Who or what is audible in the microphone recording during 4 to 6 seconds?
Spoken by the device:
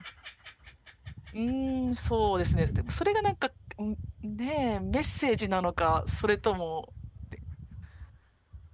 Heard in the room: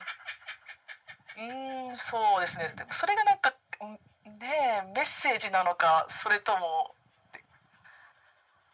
echo only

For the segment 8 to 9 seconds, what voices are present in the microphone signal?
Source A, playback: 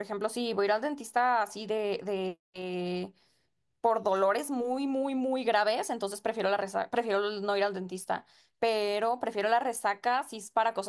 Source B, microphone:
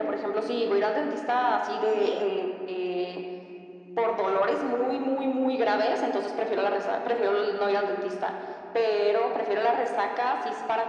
echo only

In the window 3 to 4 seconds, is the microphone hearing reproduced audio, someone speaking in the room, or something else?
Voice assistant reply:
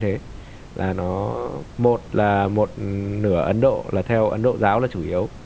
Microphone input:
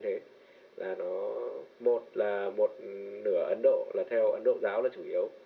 echo only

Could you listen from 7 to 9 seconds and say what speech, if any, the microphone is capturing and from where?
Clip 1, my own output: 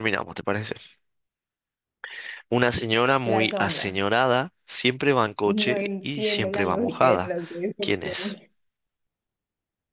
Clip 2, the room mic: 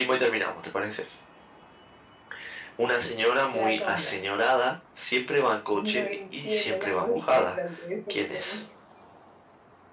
echo only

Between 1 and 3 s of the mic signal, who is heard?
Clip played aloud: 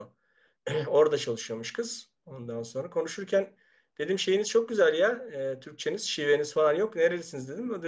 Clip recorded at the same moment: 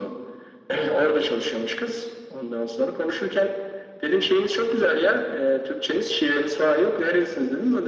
echo only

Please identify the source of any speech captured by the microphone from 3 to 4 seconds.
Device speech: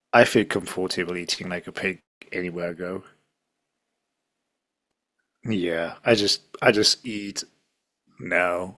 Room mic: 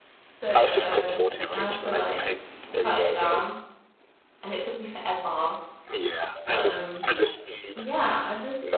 both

